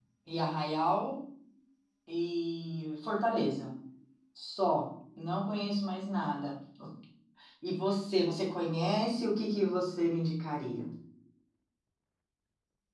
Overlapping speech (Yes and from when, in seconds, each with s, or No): No